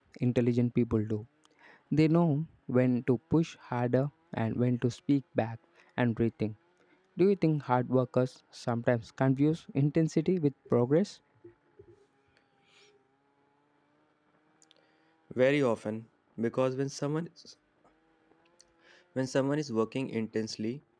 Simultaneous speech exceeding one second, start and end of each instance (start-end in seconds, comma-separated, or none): none